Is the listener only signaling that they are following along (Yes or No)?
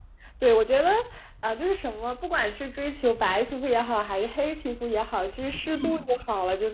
Yes